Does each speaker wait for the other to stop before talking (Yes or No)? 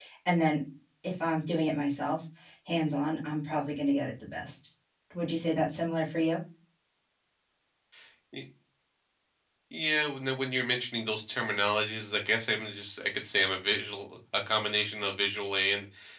Yes